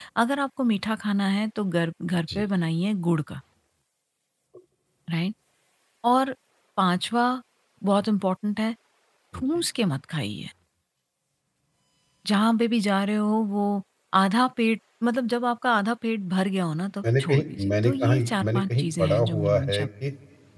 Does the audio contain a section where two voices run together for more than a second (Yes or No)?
Yes